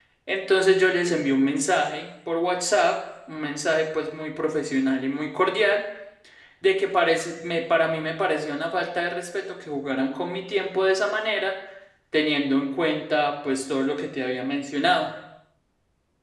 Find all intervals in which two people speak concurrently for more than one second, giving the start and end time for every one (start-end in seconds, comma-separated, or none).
none